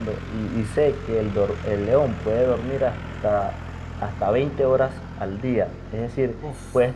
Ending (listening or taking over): listening